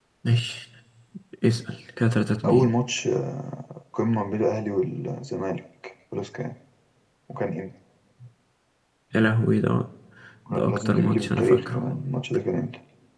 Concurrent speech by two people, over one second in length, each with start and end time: 10.5-11.9

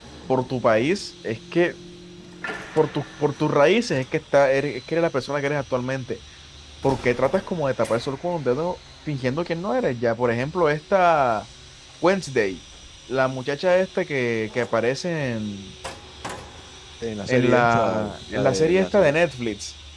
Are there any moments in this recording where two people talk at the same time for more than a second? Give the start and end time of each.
17.3-19.1

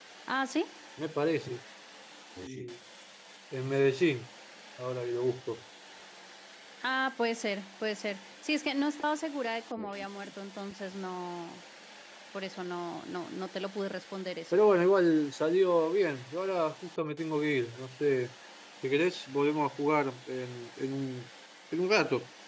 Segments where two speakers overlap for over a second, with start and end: none

